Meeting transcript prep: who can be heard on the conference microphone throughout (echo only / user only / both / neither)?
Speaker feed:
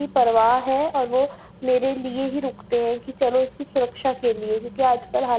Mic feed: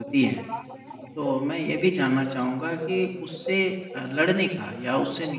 both